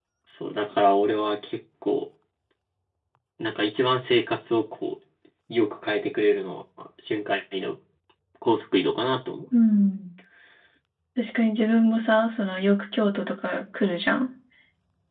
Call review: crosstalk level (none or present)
none